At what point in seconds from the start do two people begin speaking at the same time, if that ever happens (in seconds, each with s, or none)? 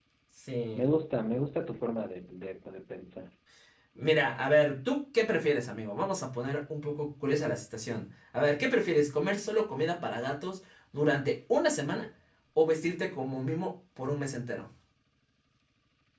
none